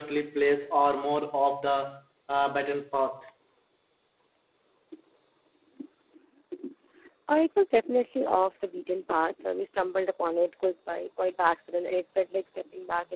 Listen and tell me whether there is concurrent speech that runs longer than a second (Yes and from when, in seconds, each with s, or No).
No